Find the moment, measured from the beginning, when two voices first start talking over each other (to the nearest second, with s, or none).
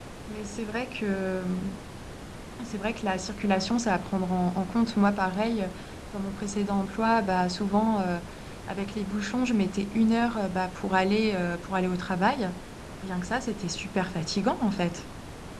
none